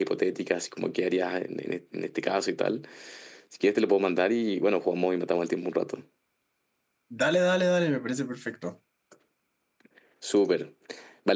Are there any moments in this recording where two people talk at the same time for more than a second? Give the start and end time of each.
none

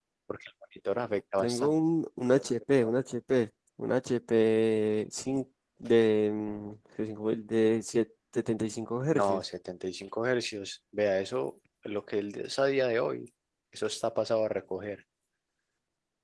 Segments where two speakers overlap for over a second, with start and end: none

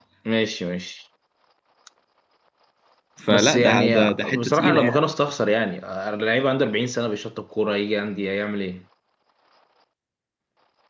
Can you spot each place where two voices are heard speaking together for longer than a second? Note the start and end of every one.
3.3-5.0

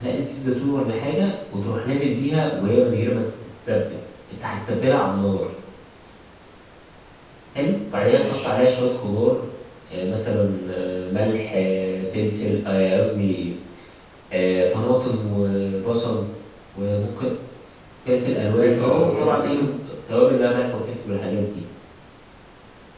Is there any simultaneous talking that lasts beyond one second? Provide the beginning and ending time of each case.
18.5-19.7

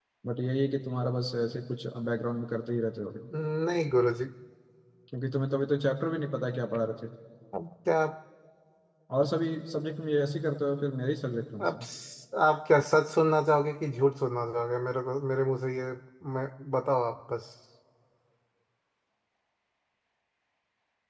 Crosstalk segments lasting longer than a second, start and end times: none

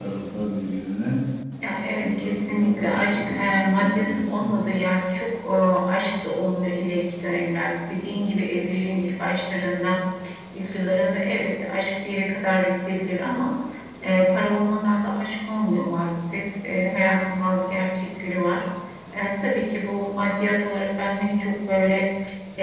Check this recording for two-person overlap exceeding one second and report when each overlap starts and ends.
2.0-4.5

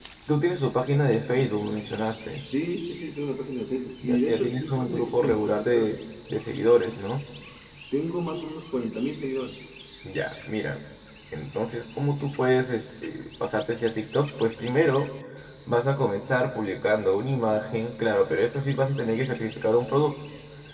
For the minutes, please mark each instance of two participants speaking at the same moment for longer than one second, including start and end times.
4.0-5.9

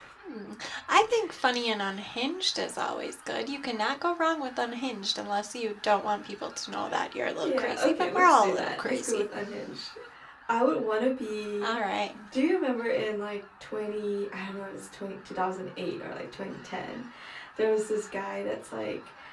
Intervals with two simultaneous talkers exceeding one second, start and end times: 7.4-9.2

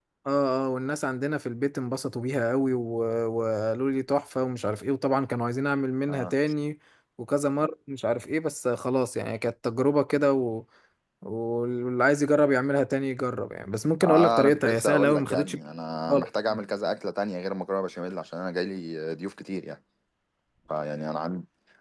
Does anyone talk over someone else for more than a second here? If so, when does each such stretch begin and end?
14.0-15.6

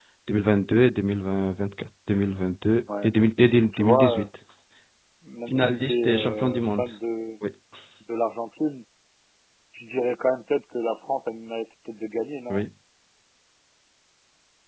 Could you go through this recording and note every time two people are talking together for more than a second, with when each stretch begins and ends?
5.5-6.9

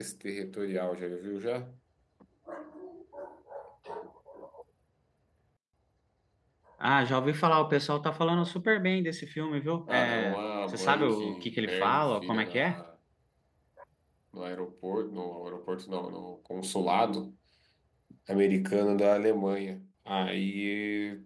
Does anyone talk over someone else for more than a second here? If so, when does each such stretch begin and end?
9.9-12.8

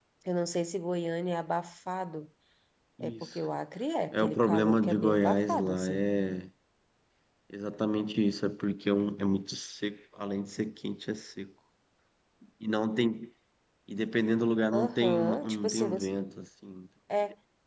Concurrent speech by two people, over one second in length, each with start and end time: 4.1-6.0, 14.7-16.1

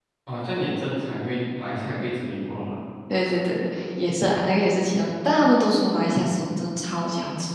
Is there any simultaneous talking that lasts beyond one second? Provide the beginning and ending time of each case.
none

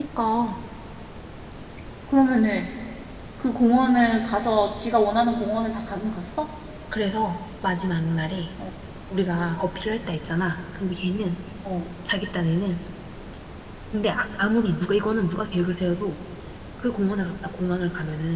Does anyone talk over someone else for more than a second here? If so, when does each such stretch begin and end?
none

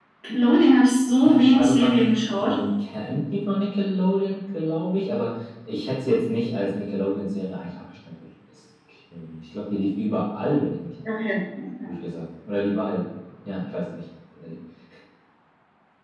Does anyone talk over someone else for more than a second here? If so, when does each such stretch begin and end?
1.2-2.5

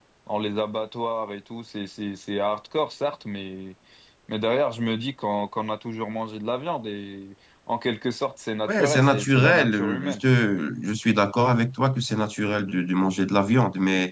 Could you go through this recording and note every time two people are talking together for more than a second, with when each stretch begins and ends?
8.7-10.2

